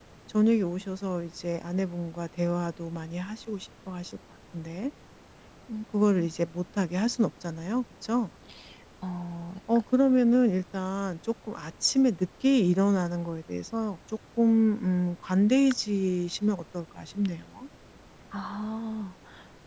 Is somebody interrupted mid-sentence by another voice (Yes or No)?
No